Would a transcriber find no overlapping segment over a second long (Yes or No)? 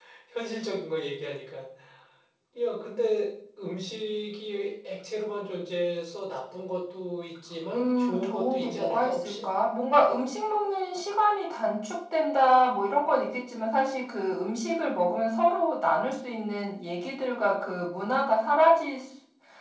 No